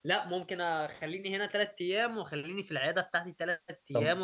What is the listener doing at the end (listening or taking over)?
taking over